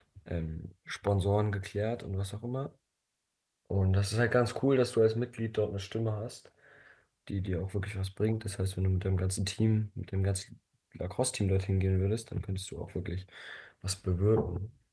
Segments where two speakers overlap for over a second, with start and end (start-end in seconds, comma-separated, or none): none